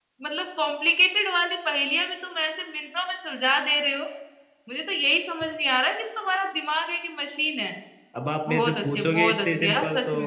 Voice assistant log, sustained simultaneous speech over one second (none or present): present